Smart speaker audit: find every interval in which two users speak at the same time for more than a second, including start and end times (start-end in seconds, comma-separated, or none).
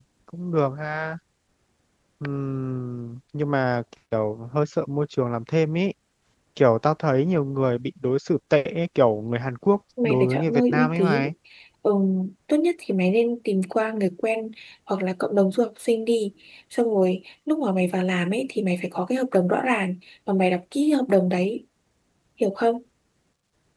10.0-11.3